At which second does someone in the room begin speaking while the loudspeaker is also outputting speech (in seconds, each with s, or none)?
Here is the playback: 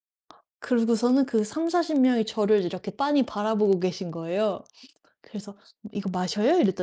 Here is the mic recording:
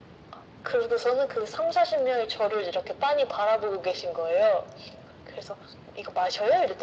none